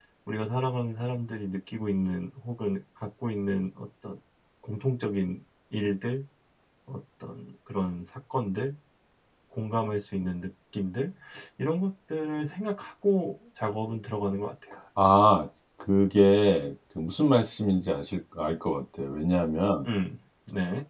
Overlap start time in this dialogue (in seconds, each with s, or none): none